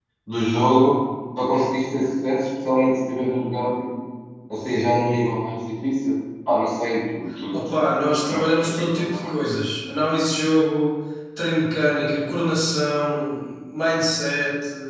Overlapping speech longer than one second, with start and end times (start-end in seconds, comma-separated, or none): 7.5-9.3